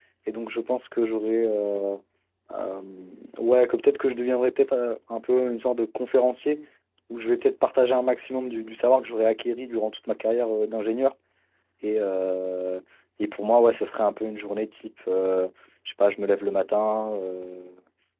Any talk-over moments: No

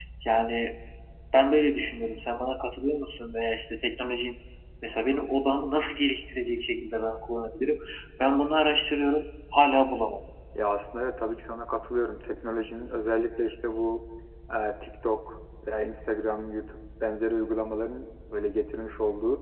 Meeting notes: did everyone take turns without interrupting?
Yes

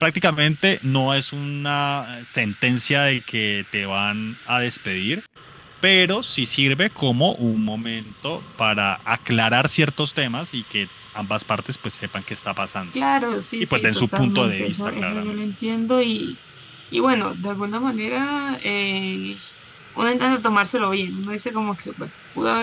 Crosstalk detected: Yes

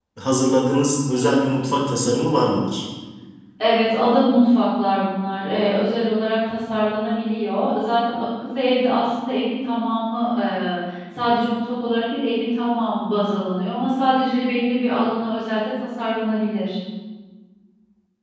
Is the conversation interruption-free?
Yes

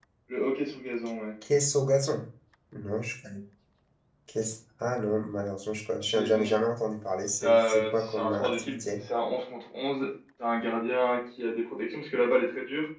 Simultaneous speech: Yes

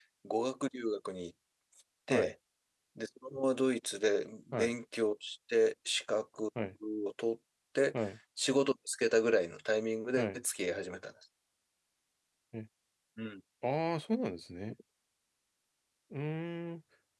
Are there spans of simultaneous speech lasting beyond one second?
No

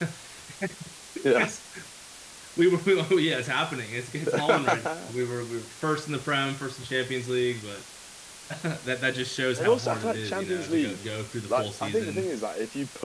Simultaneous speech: Yes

